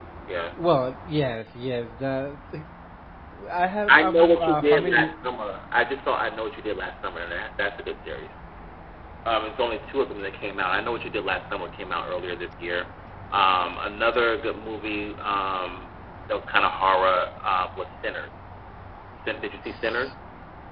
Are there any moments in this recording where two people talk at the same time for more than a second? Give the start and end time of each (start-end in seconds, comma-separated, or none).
3.9-5.2